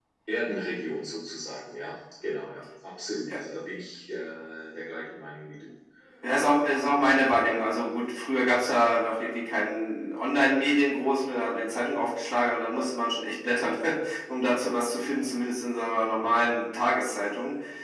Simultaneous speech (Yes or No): No